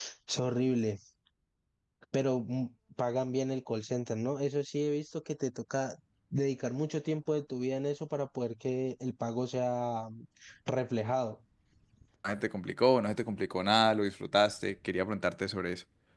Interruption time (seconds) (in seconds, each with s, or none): none